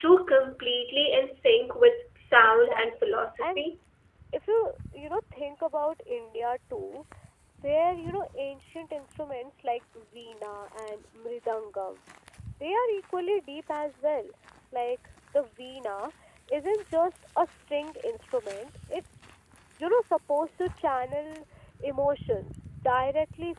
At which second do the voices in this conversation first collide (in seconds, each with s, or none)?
2.4 s